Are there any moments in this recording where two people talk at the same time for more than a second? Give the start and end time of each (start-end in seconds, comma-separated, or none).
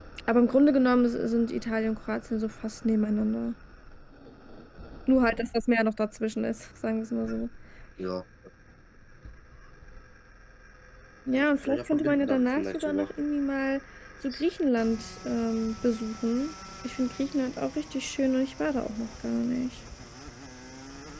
11.4-13.1